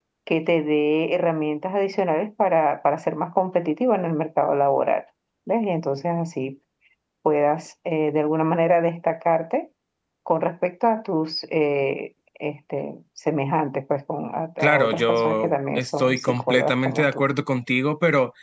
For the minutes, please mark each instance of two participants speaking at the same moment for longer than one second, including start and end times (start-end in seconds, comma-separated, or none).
14.6-17.2